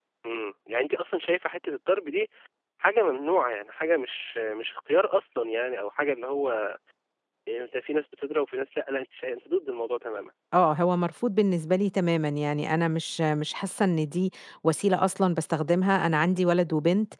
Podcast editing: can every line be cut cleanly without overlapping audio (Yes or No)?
Yes